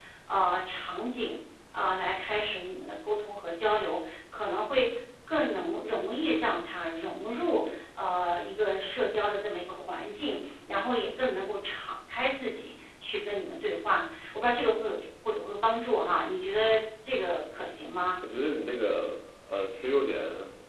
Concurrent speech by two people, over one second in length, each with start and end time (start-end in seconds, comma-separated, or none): none